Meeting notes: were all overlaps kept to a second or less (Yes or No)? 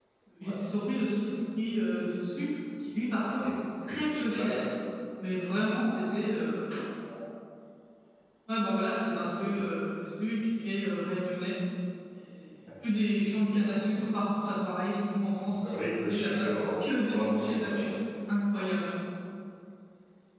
No